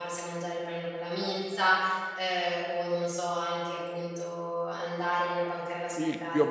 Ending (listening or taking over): taking over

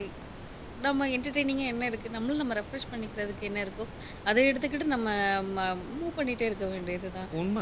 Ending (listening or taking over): taking over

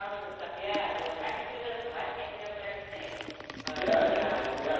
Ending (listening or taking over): taking over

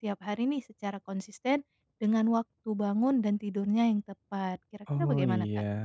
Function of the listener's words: taking over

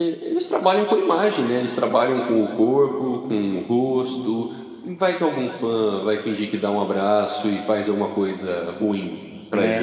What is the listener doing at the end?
taking over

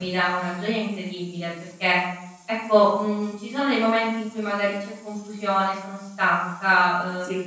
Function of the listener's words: listening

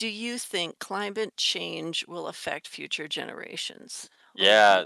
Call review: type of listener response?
taking over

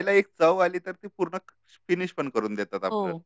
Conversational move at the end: taking over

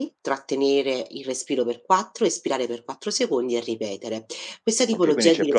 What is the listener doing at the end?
taking over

